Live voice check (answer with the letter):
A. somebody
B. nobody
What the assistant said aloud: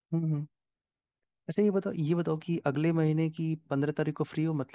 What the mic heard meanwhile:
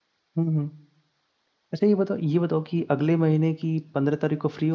B